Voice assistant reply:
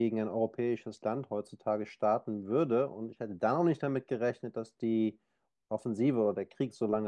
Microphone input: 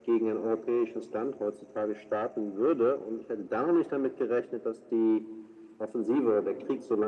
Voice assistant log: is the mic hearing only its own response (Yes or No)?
Yes